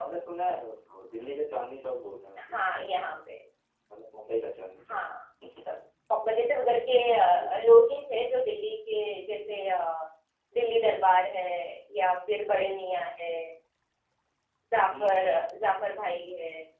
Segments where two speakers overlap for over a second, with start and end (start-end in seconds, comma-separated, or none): none